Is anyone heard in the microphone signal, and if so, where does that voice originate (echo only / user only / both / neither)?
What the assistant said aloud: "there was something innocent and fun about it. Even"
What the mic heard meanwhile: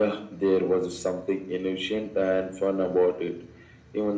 echo only